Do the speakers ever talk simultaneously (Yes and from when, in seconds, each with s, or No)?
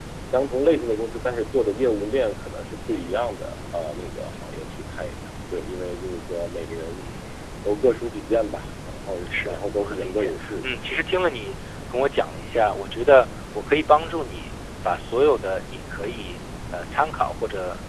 Yes, from 9.3 s